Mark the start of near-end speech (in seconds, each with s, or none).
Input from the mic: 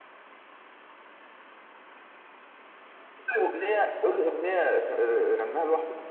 none